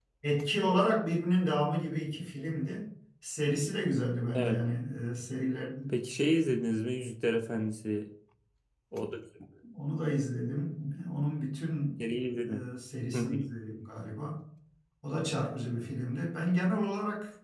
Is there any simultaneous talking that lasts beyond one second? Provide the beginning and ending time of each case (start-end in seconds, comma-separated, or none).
none